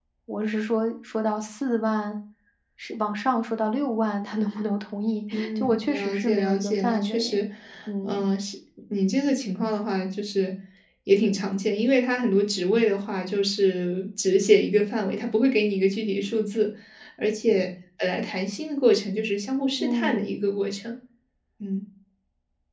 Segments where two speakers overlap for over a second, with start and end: 5.3-7.4

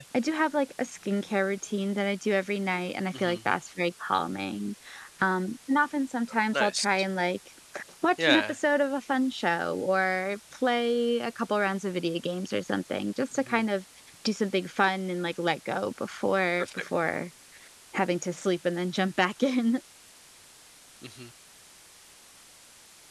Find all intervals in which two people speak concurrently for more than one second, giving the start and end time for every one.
none

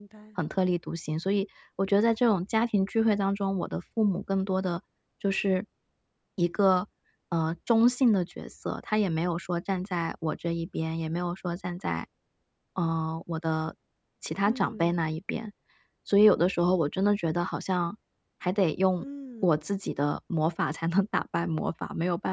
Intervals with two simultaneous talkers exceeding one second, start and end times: none

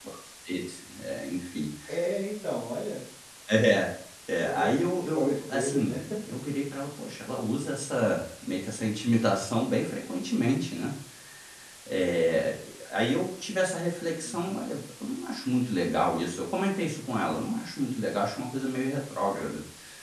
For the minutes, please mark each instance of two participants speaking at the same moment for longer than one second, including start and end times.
4.5-6.0

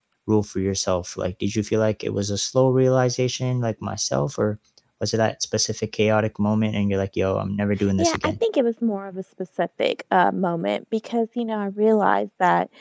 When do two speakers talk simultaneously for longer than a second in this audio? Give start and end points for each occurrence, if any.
none

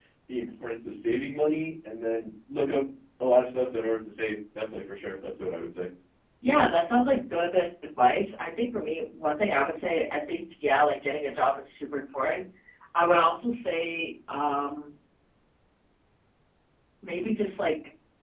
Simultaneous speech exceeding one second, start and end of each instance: none

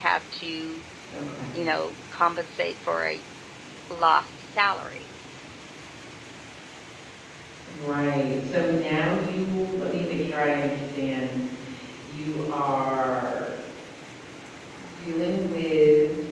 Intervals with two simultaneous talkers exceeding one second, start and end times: none

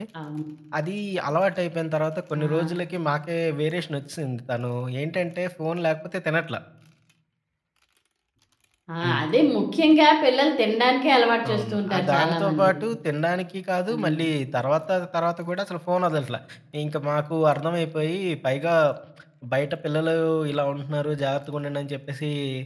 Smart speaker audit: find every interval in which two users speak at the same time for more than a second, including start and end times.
11.5-12.7

